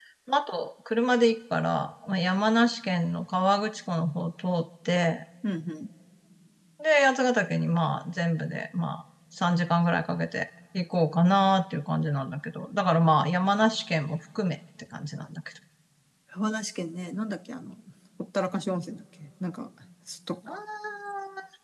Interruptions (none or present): none